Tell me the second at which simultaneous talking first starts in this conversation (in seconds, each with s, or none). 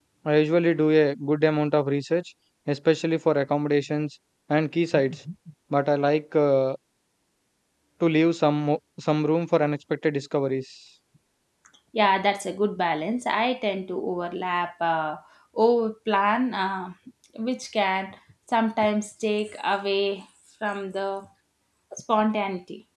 none